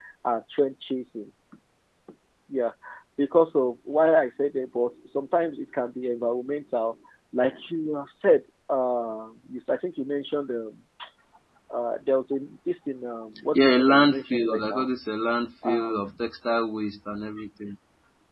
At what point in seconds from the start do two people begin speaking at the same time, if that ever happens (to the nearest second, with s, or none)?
14 s